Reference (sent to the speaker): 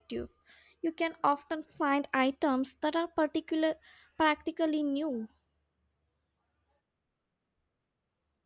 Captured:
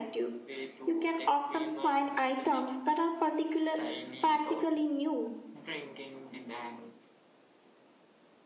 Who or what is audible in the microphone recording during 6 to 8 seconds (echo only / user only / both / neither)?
user only